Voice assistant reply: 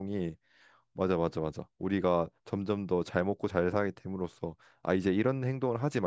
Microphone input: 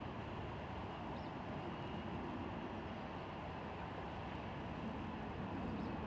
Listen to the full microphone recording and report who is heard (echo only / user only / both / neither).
neither